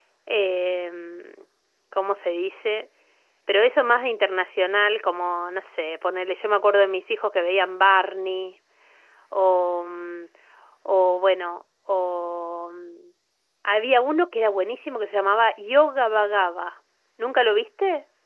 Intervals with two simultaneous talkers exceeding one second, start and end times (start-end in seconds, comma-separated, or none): none